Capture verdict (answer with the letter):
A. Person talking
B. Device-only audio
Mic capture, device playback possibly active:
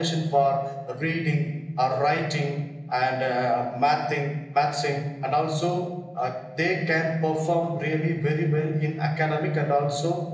B